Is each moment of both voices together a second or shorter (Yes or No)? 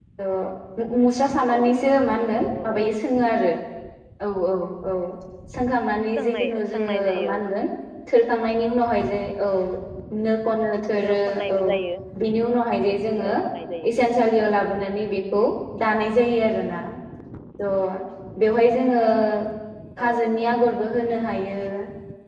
No